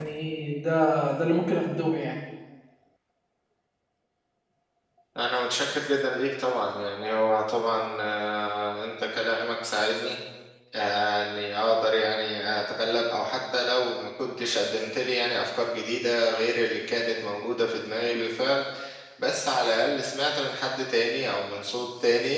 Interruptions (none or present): none